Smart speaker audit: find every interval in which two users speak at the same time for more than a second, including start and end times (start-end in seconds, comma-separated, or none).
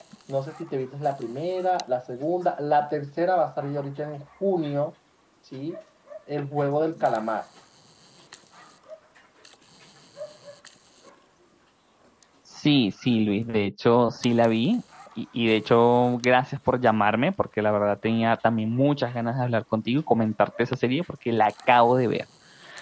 none